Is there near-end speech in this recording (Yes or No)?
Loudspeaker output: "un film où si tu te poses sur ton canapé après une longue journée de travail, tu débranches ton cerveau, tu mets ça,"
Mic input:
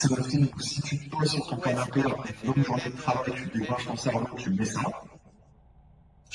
Yes